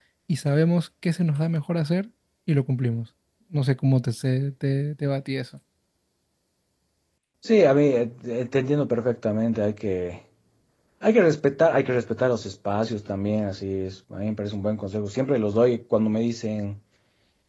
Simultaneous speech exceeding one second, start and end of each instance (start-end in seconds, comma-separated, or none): none